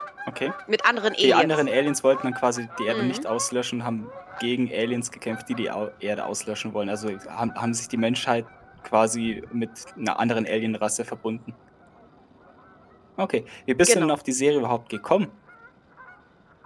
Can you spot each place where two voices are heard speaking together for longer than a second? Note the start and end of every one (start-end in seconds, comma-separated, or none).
none